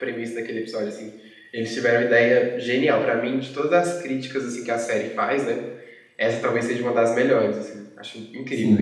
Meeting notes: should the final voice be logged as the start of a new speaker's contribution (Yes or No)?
Yes